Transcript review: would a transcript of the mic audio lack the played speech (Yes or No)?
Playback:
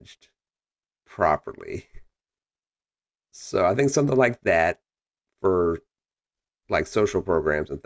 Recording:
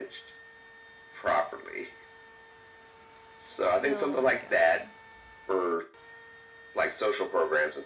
No